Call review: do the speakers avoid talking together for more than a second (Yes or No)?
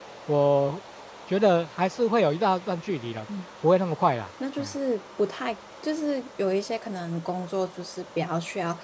Yes